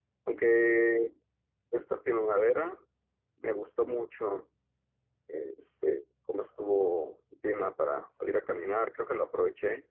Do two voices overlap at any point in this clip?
No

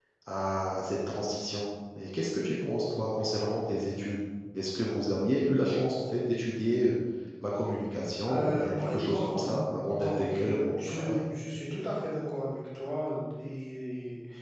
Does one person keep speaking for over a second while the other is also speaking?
Yes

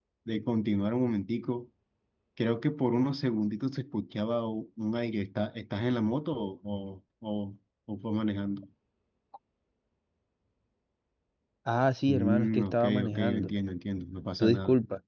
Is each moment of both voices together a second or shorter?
No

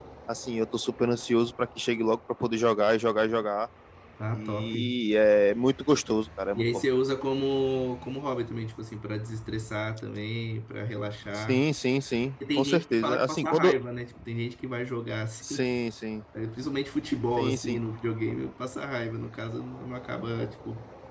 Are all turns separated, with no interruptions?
No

